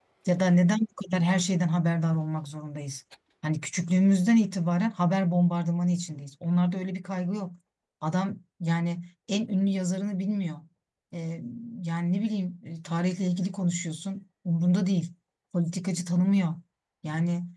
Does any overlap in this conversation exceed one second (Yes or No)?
No